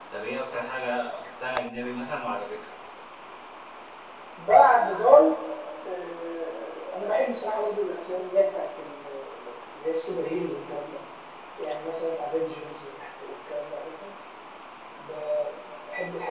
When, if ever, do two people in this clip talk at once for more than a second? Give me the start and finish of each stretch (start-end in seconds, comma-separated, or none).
none